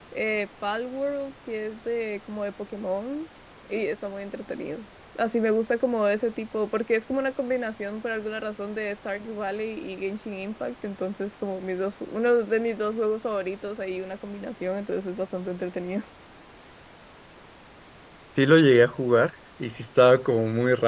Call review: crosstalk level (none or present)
none